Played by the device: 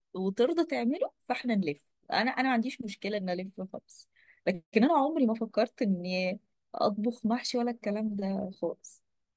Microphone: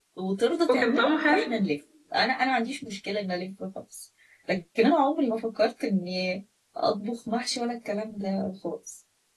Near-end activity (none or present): present